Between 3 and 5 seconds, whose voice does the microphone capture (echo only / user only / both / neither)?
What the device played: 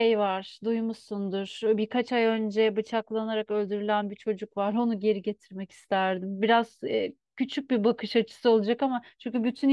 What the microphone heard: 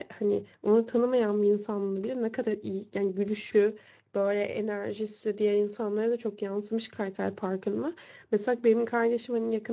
user only